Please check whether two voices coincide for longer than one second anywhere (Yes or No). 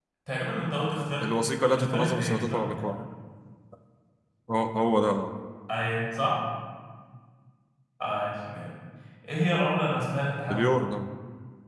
Yes